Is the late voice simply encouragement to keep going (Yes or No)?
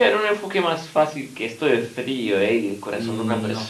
No